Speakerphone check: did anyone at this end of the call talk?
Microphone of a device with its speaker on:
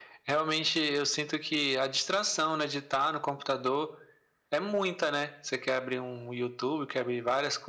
No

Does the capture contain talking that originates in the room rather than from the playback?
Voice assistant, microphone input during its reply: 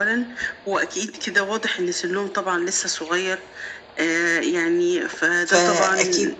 Yes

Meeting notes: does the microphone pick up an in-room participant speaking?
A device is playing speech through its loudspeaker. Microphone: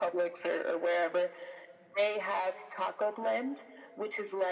No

